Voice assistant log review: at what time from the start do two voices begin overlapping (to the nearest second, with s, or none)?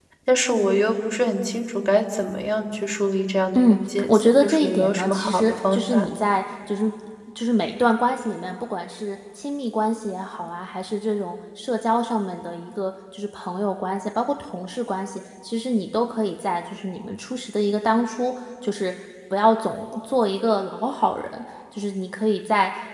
4 s